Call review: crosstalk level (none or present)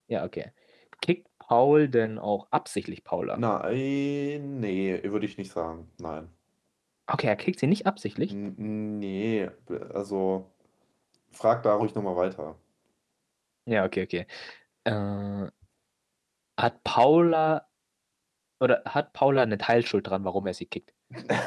none